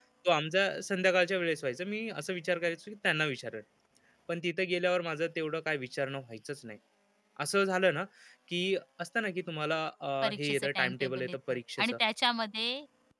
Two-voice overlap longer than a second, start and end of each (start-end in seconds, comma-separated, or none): 10.2-11.9